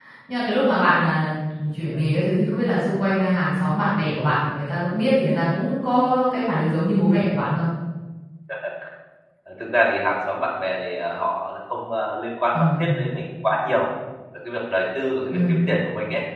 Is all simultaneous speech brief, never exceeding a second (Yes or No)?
Yes